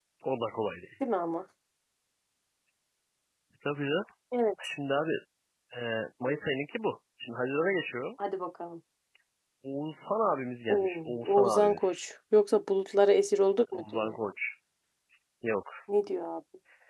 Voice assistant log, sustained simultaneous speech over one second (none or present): present